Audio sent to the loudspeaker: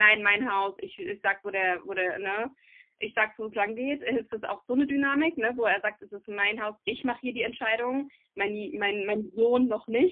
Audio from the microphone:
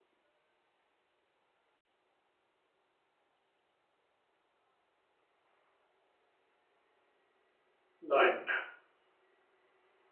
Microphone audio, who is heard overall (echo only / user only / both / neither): user only